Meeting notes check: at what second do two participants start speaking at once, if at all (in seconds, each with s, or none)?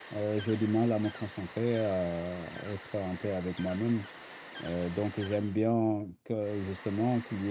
none